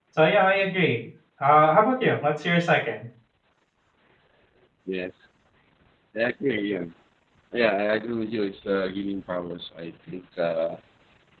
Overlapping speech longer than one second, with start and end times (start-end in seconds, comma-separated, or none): none